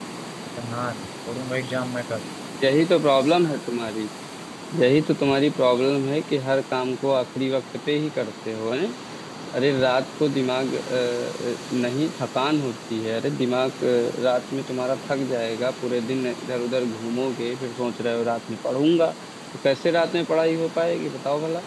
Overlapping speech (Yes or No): No